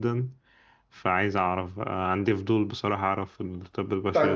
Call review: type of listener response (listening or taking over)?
taking over